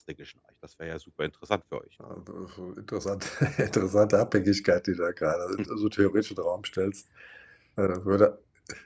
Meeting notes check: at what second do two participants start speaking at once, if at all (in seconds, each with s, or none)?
none